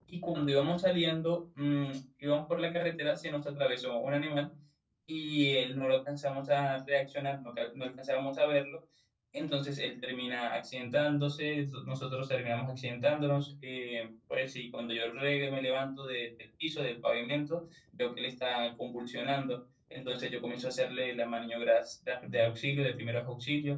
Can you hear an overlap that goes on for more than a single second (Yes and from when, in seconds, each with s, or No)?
No